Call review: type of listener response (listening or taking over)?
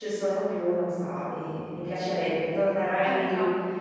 listening